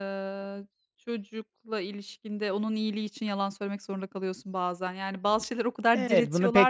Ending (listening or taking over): taking over